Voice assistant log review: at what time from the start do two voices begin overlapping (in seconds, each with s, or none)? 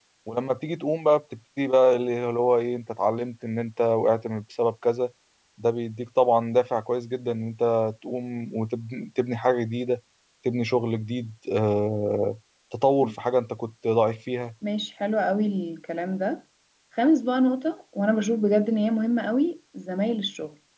none